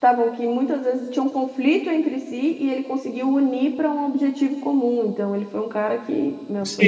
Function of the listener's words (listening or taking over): taking over